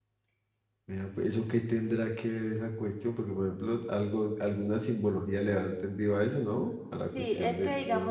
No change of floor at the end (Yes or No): No